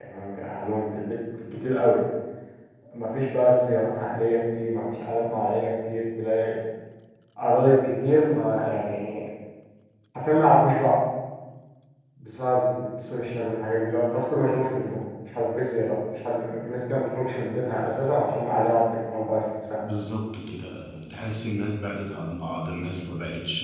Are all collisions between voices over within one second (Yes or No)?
Yes